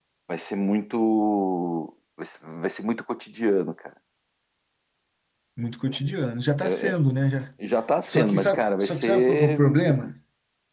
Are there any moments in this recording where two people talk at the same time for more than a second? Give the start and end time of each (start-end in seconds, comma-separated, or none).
8.1-9.6